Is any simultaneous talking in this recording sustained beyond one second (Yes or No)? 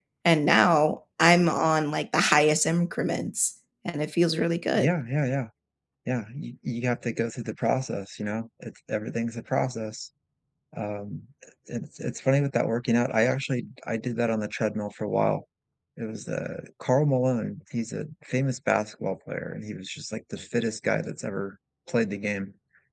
No